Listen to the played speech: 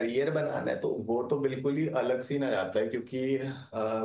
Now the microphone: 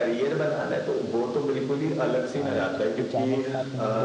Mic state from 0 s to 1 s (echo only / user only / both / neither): echo only